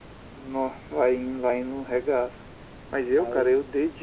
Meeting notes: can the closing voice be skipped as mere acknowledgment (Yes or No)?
Yes